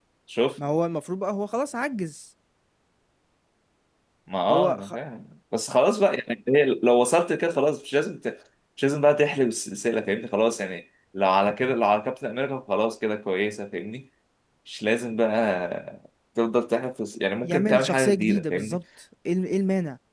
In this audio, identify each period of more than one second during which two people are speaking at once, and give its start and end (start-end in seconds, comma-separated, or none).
17.4-18.8